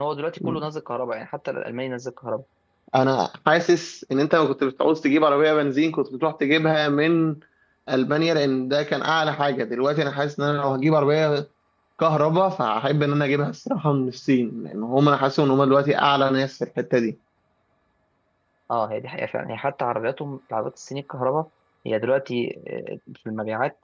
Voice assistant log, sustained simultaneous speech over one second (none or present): none